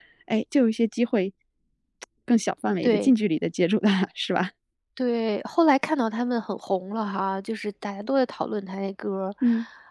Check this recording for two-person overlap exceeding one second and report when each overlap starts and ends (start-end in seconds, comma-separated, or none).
none